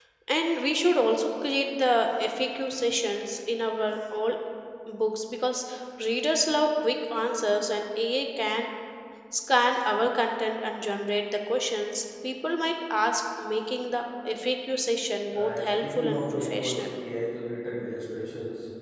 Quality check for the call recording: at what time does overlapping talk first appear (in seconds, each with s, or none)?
15.3 s